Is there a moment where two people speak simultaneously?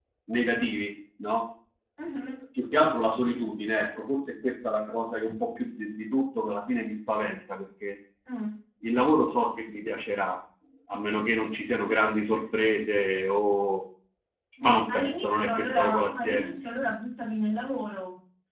Yes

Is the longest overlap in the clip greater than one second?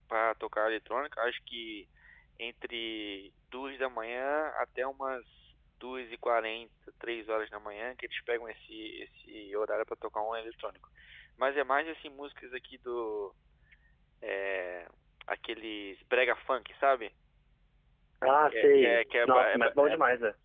Yes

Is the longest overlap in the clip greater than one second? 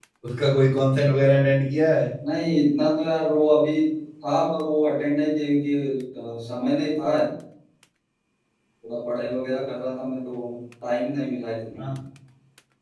No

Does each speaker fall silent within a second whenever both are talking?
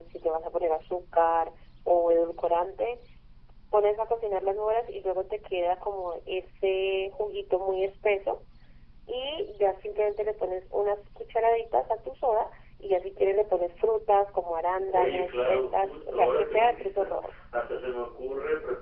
No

